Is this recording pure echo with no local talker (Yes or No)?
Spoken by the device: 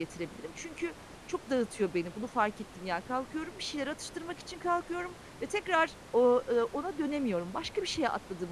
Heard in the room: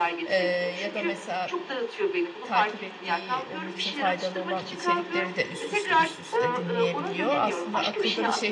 No